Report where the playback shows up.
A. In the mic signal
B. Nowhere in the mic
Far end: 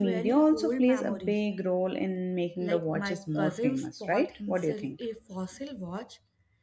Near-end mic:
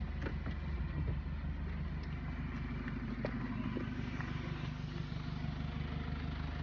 B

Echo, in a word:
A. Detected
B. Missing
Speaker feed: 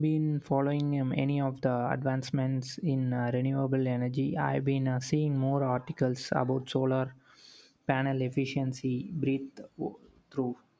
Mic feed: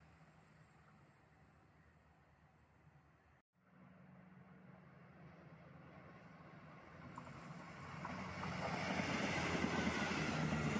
B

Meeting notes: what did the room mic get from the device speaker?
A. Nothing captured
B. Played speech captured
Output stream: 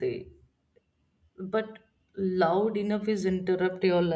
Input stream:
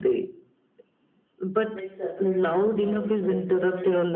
B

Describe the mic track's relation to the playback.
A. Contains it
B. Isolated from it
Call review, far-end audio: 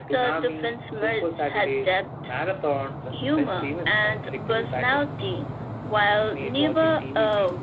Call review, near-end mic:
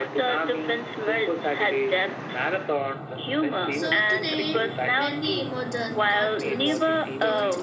A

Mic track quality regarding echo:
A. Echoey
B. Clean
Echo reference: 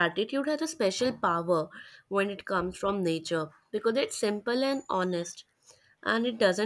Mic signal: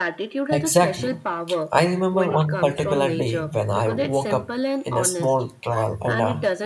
A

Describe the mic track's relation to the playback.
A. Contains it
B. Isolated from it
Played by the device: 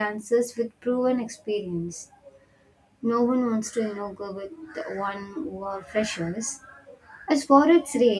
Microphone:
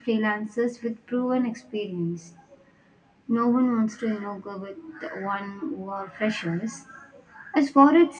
A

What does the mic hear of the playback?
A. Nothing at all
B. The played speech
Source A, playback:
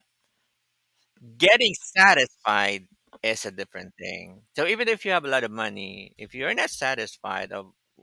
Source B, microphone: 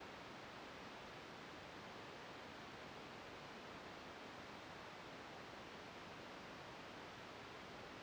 A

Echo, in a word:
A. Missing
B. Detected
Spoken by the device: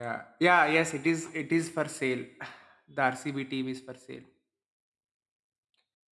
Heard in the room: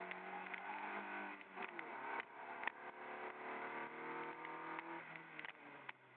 A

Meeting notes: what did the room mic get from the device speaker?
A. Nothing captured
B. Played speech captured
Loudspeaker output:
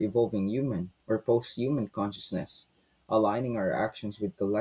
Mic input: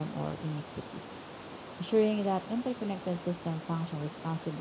A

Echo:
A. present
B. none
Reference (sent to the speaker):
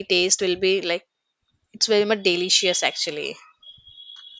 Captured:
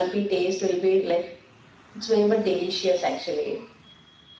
A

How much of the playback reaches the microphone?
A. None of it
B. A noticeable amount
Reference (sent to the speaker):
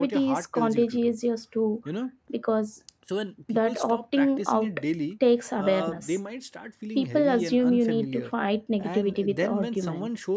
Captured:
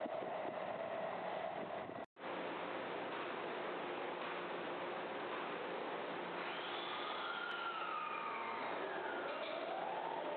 A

